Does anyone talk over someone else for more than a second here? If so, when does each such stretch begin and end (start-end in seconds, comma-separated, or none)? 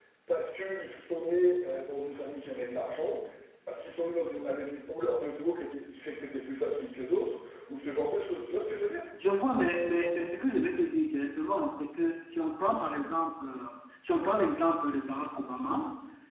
none